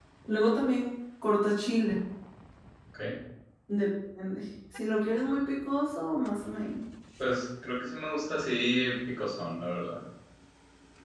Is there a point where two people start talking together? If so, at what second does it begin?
none

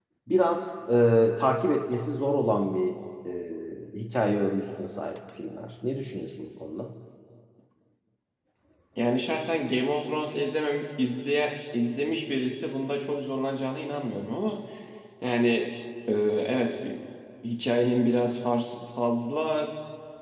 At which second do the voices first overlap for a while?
none

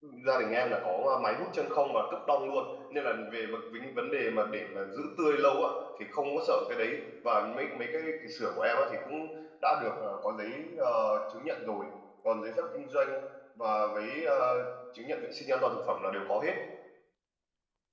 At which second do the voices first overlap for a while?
none

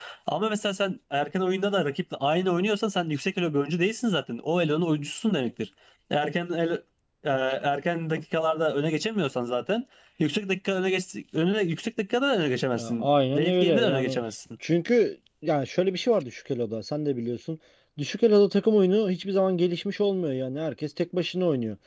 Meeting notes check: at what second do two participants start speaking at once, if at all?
12.7 s

